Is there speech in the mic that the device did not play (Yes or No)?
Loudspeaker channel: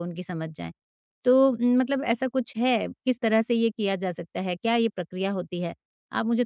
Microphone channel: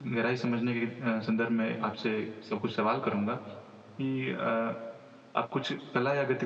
Yes